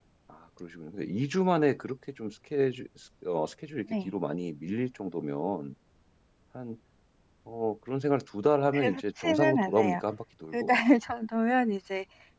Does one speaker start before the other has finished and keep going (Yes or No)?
Yes